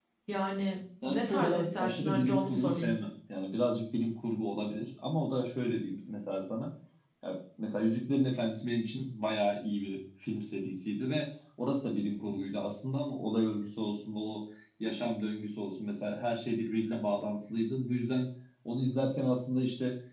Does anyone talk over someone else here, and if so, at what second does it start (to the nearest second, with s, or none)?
1 s